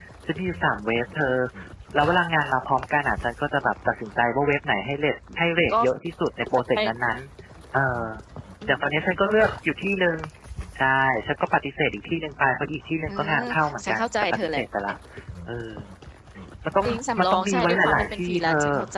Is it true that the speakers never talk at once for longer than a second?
No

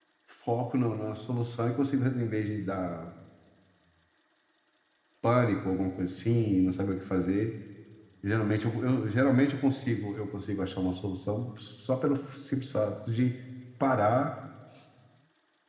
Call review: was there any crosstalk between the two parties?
No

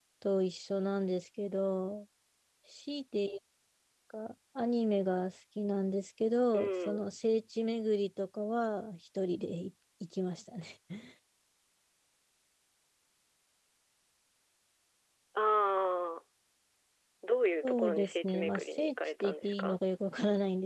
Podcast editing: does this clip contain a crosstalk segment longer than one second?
Yes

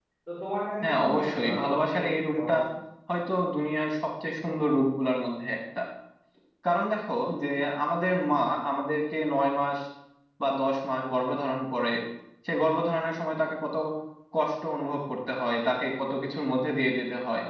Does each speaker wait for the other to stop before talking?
No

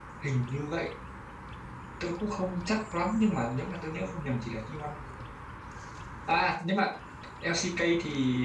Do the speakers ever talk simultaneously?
No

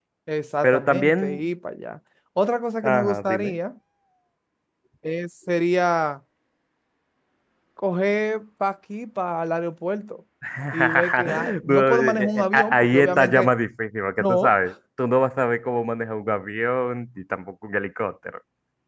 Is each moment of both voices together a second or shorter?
No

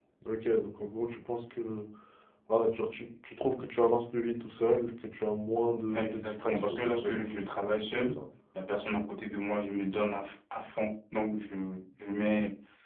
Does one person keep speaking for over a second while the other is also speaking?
Yes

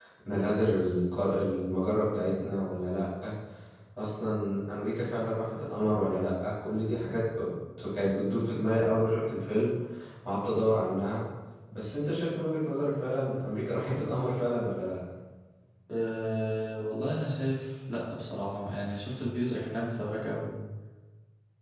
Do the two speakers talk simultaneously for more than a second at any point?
No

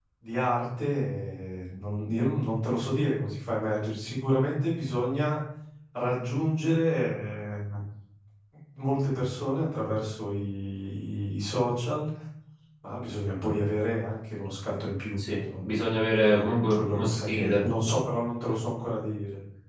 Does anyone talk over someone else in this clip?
Yes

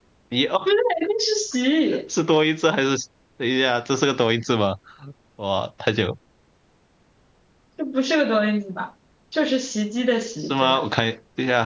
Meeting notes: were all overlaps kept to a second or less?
Yes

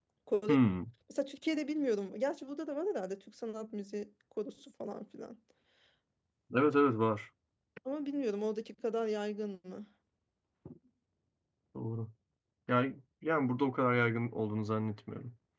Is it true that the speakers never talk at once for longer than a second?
Yes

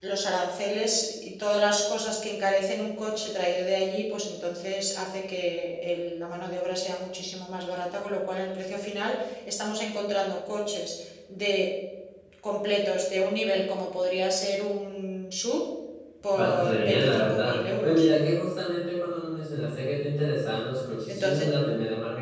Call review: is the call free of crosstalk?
No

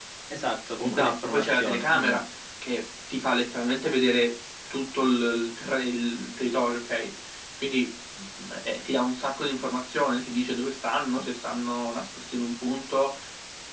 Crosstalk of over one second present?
Yes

